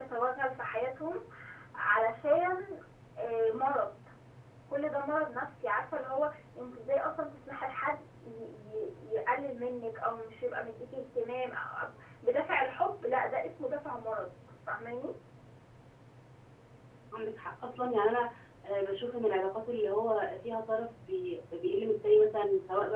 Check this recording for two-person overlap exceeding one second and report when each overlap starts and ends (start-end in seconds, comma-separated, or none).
none